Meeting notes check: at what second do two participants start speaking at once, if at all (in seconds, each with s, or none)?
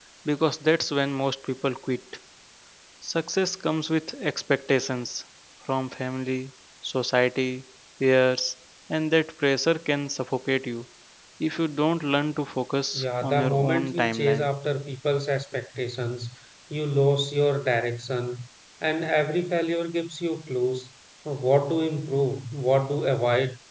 12.9 s